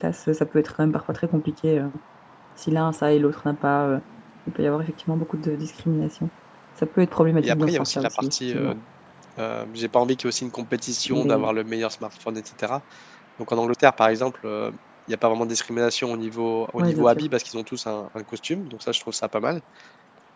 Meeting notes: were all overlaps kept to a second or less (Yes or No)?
No